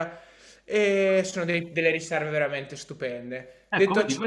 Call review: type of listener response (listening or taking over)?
taking over